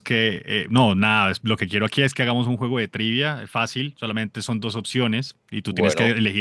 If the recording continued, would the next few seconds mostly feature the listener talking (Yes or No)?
No